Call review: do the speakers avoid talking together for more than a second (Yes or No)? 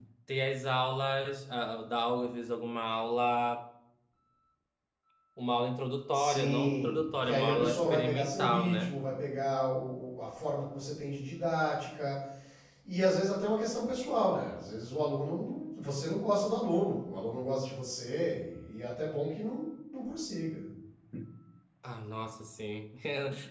No